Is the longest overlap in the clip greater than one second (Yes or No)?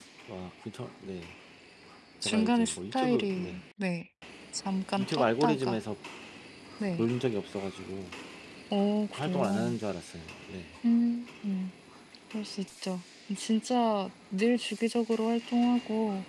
Yes